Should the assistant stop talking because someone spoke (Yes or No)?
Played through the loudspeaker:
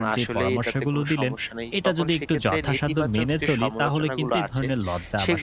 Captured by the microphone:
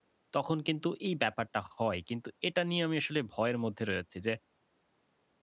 Yes